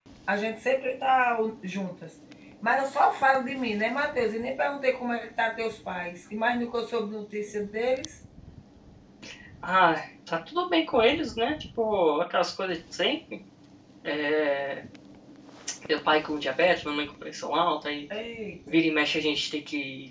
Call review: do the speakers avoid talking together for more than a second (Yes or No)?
Yes